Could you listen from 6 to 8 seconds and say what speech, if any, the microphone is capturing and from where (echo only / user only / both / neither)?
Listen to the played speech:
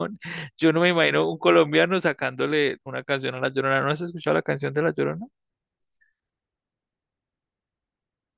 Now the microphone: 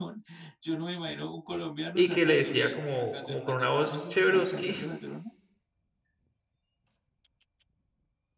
neither